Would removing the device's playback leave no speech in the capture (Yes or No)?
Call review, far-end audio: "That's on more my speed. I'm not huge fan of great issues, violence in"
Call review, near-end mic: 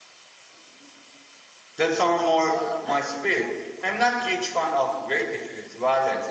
No